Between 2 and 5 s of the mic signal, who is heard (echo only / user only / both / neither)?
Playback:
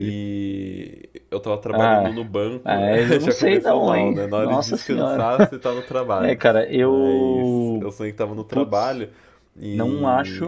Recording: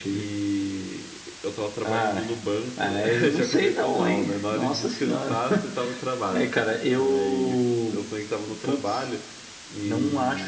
echo only